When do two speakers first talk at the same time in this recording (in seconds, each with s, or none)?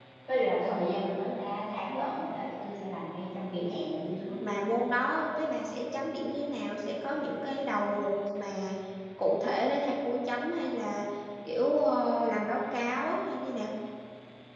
none